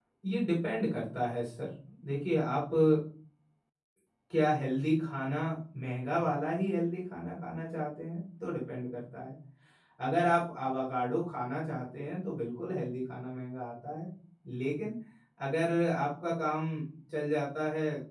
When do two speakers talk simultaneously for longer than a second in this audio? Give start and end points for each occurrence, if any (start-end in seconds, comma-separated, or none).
none